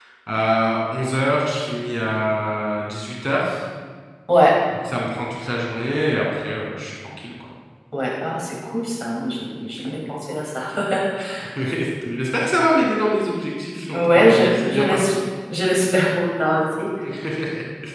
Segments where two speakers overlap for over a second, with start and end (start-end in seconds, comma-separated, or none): 13.9-15.1